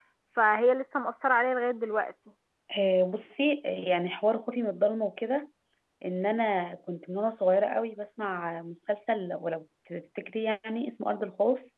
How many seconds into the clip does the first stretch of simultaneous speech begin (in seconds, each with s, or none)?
none